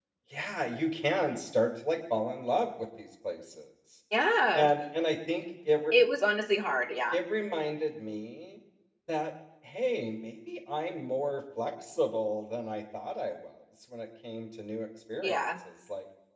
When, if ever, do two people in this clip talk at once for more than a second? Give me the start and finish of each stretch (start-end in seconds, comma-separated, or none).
none